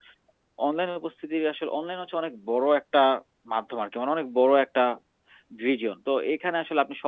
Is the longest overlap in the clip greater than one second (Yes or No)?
No